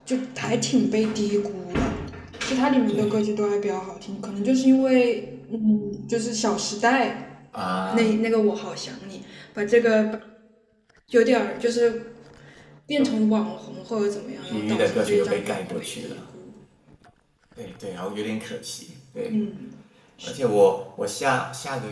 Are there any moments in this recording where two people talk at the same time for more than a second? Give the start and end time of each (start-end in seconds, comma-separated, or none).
14.4-16.2